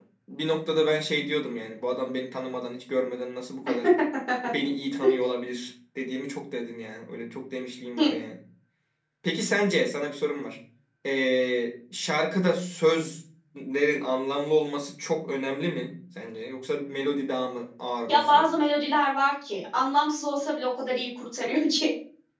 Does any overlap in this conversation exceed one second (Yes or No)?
No